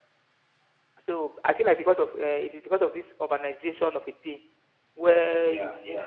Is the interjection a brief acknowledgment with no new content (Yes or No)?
Yes